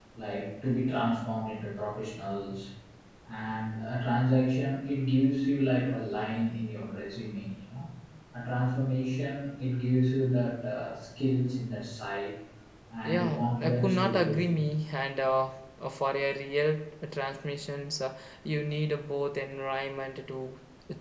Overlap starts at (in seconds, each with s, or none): 13.0 s